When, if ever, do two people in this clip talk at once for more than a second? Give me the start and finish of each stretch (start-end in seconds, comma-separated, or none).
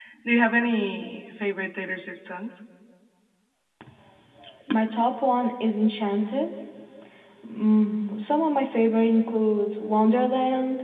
none